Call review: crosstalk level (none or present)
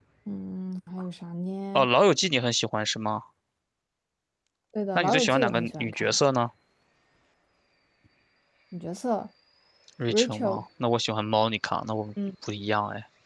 present